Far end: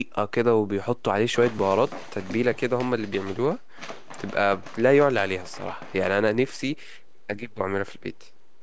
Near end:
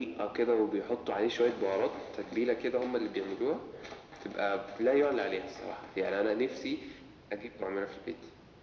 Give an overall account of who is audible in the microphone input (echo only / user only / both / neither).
echo only